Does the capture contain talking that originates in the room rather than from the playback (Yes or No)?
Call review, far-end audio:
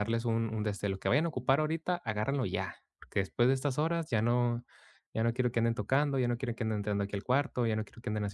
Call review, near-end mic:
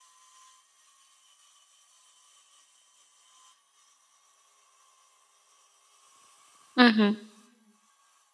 Yes